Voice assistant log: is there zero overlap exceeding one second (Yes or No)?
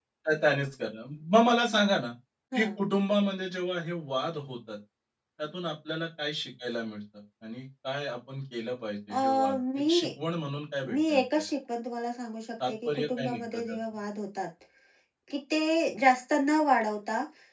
No